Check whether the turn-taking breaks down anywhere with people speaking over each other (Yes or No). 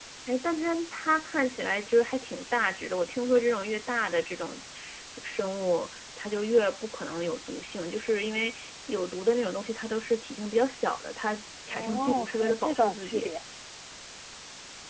Yes